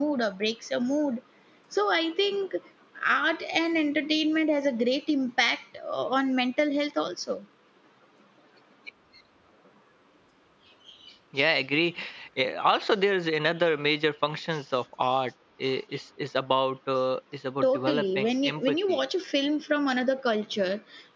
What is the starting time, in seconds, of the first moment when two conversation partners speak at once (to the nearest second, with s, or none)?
18 s